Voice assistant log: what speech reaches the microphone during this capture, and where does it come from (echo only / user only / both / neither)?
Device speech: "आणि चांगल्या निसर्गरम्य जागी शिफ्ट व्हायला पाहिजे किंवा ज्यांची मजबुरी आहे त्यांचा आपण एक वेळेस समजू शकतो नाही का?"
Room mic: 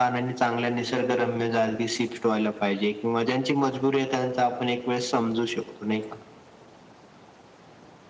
echo only